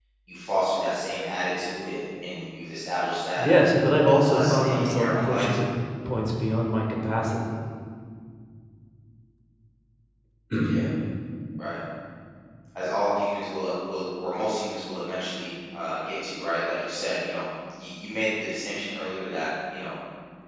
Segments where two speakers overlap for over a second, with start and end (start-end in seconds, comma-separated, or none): 4.1-5.6